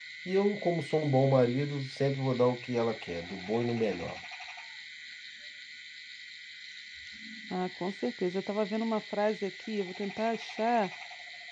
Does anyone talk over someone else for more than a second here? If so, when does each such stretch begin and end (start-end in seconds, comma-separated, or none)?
none